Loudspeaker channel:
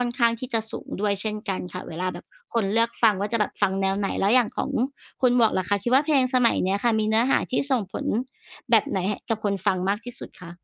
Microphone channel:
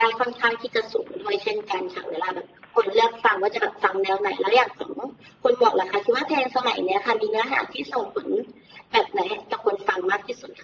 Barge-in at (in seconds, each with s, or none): none